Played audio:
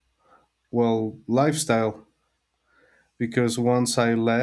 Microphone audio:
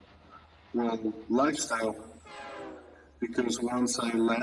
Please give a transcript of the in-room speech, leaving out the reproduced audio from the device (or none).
none